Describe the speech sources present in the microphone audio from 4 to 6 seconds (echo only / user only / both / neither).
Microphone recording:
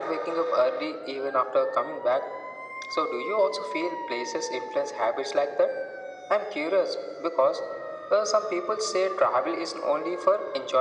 echo only